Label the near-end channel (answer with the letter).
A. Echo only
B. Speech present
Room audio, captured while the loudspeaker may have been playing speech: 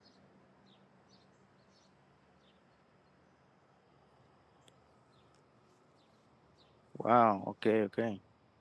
B